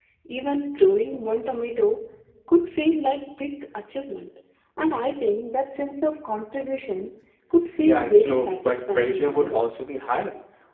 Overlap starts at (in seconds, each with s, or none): 7.8 s